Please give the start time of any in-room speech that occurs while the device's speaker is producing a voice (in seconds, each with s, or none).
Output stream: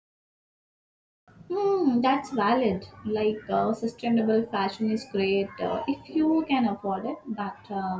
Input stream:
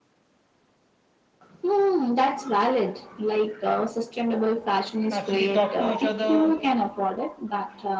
5.1 s